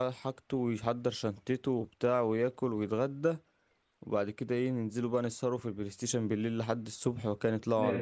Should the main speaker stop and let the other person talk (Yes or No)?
Yes